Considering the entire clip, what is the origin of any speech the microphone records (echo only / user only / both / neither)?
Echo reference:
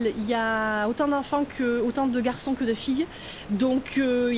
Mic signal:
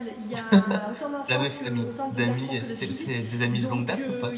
both